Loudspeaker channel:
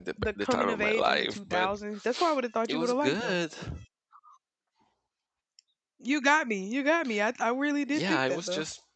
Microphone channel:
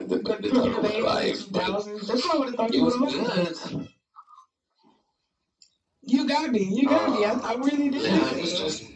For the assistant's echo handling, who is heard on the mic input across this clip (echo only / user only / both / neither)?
both